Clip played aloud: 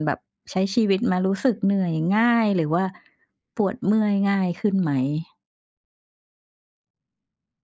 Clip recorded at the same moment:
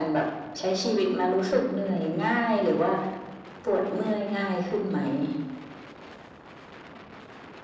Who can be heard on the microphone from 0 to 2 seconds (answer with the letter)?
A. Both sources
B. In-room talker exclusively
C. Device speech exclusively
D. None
C